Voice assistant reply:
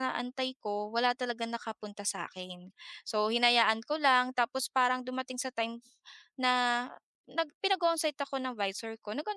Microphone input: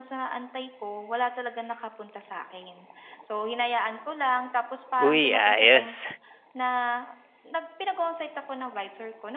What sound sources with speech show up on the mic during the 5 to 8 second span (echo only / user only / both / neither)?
both